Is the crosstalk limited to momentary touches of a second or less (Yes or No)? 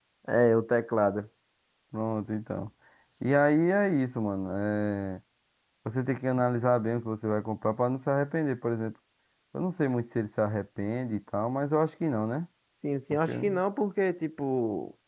Yes